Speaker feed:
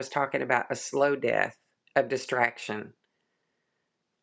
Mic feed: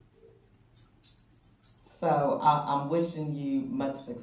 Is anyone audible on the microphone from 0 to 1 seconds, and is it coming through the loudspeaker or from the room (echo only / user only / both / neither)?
neither